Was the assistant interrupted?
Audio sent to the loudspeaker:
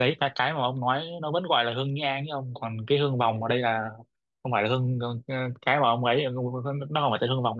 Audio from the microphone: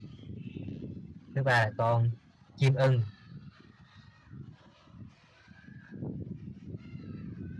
Yes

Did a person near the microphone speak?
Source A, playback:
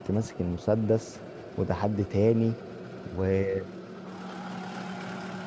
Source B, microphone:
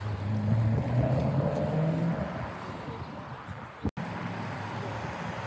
No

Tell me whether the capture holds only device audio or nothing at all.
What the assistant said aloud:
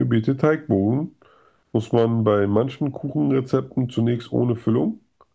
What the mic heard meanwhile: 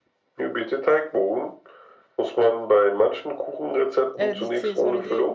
No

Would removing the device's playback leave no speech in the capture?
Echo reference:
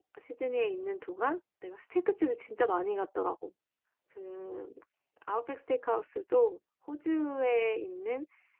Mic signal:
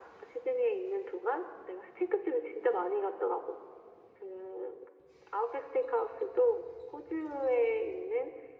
Yes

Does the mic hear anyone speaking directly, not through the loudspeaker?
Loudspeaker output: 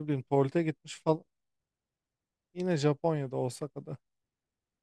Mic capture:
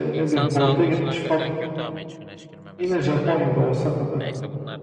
Yes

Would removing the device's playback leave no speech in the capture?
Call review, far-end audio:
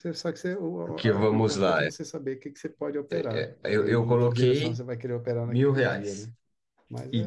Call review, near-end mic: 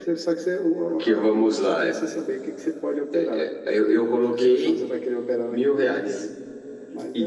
Yes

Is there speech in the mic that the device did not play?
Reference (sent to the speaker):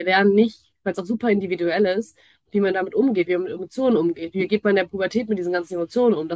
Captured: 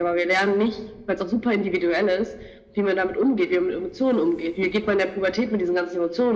No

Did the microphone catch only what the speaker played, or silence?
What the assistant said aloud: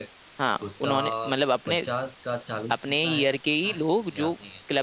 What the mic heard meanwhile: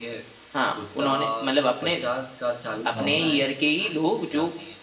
No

